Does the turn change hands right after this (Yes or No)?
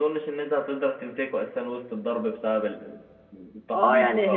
Yes